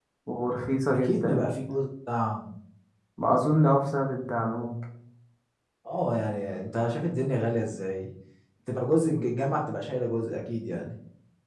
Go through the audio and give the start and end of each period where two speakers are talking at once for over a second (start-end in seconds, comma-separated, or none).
none